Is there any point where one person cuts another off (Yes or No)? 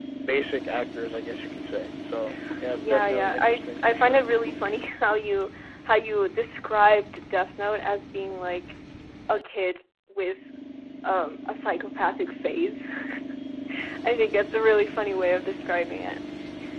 Yes